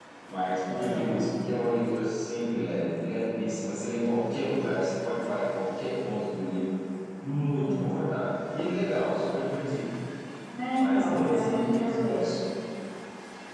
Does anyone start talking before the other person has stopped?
Yes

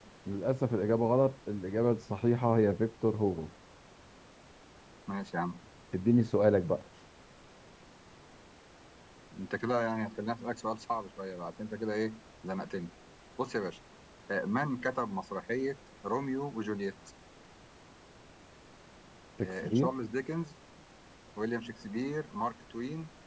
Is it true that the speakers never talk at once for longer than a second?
Yes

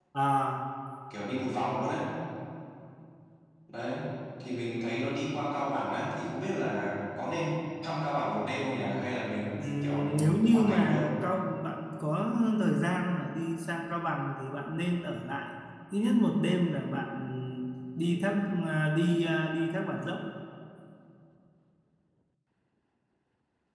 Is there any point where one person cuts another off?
Yes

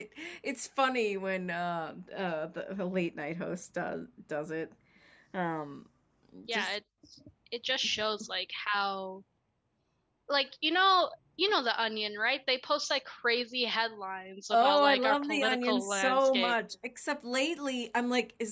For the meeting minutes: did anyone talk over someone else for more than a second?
Yes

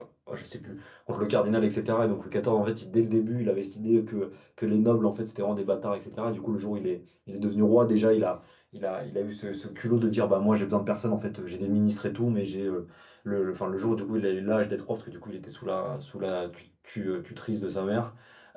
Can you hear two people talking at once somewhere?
No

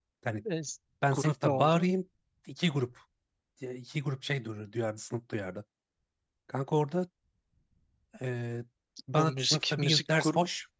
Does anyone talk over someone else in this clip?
Yes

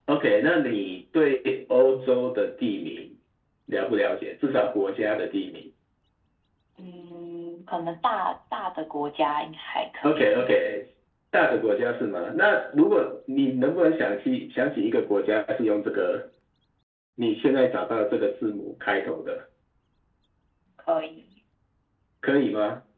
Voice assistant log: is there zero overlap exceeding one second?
Yes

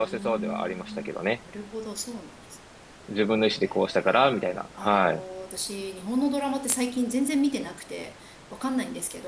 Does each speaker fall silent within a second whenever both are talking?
No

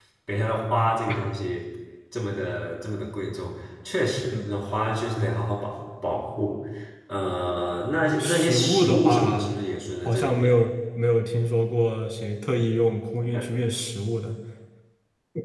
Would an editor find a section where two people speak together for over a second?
Yes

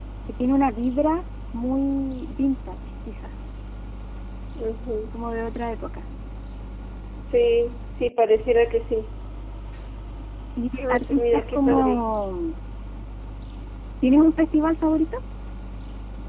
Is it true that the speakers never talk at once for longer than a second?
No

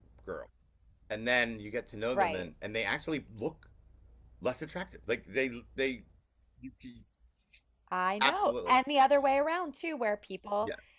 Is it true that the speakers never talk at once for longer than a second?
Yes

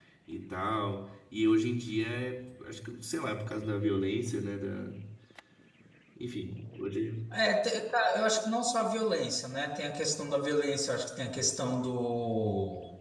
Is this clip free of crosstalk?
Yes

